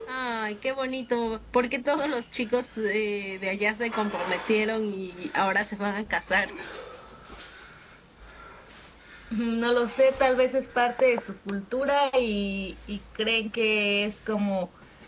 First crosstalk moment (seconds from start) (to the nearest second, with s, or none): none